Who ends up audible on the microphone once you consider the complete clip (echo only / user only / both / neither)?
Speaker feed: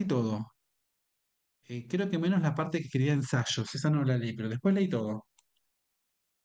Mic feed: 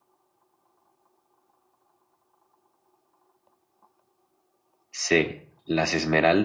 user only